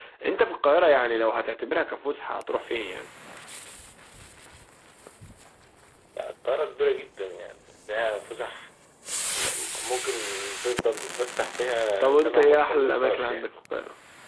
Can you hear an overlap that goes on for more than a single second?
Yes, from 12.0 s

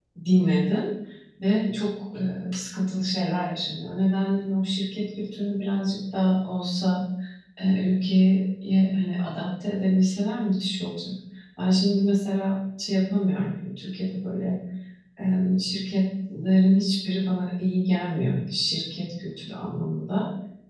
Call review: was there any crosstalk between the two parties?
No

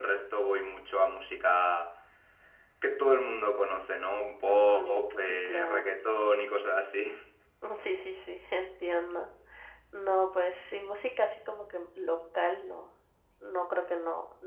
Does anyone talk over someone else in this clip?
Yes, from 4.5 s

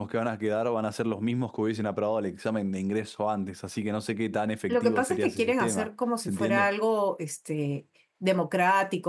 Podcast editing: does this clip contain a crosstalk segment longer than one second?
Yes, from 4.7 s

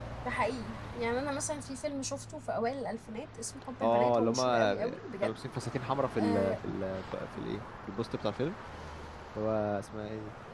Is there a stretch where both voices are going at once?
Yes, from 3.8 s

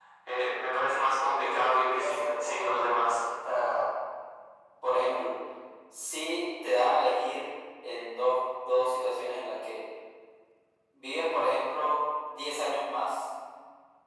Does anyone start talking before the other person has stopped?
Yes, from 1.4 s

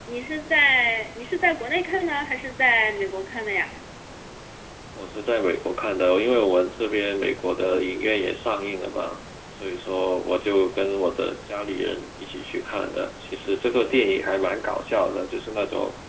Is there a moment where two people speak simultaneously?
No

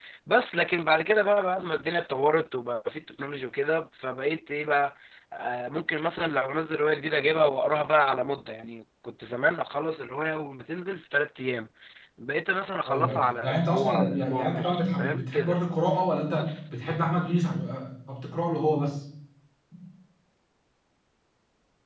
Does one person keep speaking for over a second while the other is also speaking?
Yes, from 12.9 s

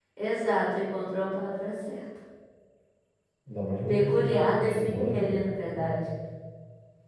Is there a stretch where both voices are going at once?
Yes, from 3.9 s

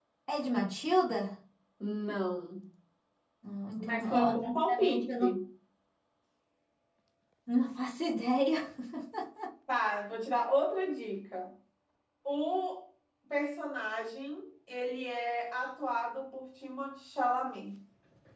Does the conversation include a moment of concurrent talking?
Yes, from 3.8 s

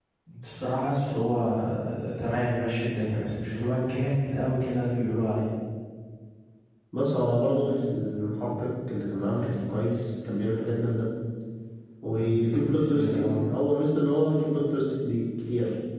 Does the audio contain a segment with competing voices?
Yes, from 12.2 s

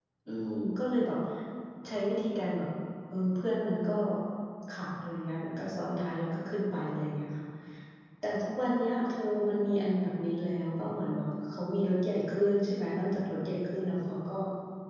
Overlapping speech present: No

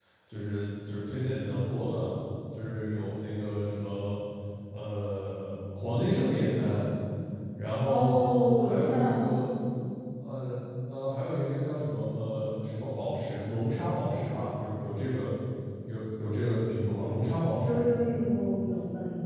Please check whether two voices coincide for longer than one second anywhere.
Yes, from 7.9 s

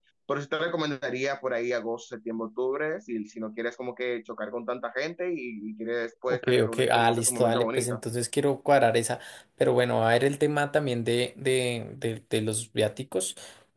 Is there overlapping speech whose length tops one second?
Yes, from 6.3 s

